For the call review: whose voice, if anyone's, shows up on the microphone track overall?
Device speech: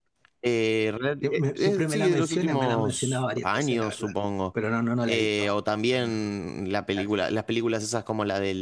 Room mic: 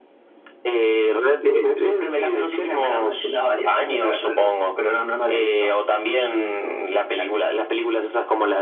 echo only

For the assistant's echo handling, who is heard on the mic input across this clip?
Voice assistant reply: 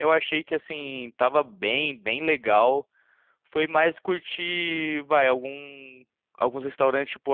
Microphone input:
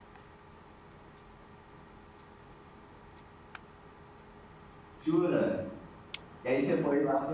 user only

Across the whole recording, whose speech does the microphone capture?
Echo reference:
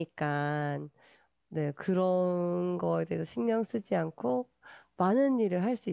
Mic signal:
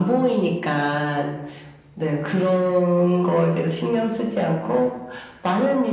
echo only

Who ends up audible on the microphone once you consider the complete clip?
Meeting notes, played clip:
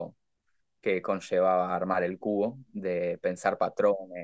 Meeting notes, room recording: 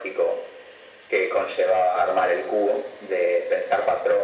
echo only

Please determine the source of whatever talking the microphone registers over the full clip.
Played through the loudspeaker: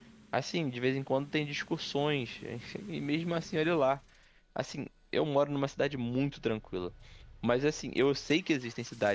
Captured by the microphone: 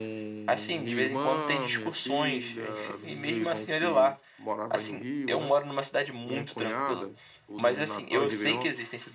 both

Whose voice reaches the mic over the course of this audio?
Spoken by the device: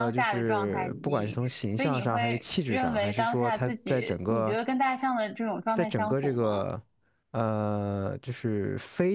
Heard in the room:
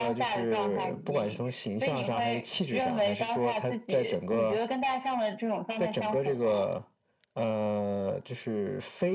echo only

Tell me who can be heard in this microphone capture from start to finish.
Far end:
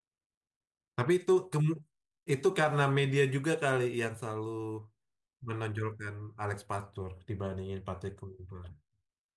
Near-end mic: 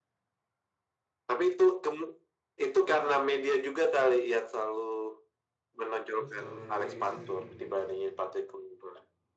both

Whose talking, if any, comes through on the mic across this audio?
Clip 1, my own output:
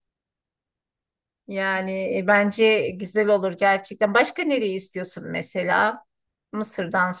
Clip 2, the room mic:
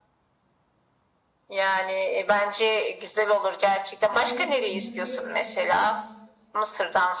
both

